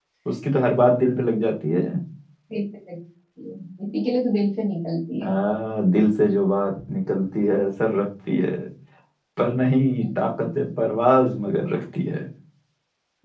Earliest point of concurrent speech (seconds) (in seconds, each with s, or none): none